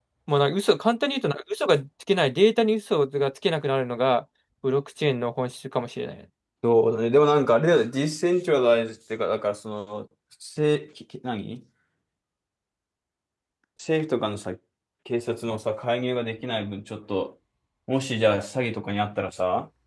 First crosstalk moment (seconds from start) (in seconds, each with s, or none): none